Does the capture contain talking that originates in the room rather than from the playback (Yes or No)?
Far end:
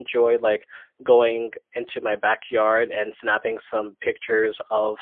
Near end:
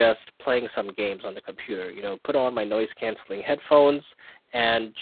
Yes